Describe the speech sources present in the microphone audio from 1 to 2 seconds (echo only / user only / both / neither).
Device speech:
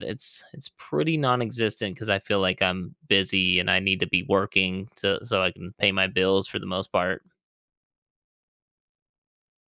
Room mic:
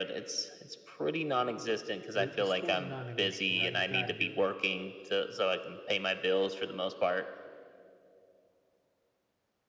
echo only